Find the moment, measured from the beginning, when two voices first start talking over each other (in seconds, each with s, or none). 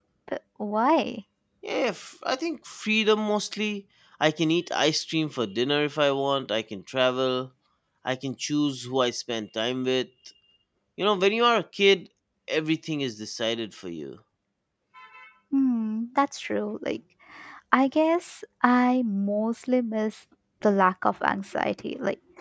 none